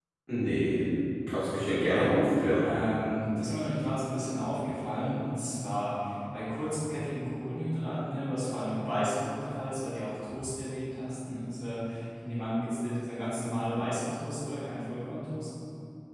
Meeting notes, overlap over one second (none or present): none